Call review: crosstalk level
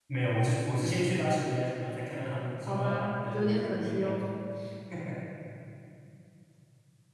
present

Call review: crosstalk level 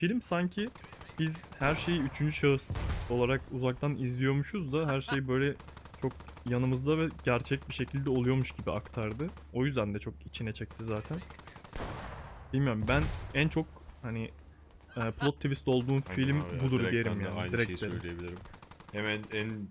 present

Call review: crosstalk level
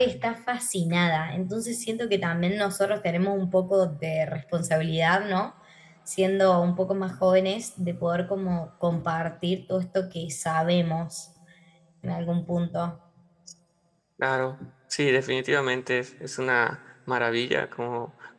none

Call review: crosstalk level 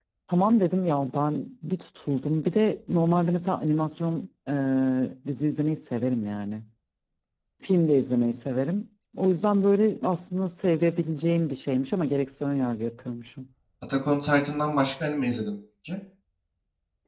none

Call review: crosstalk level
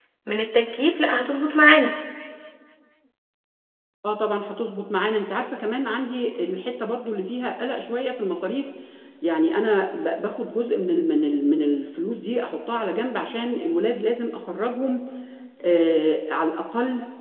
none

